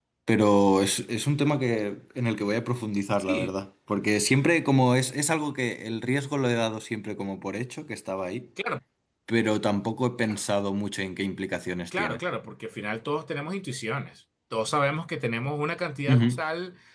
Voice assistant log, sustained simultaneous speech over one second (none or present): none